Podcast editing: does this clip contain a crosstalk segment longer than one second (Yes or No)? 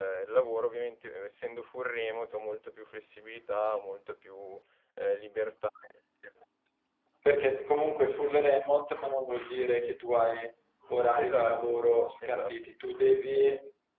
No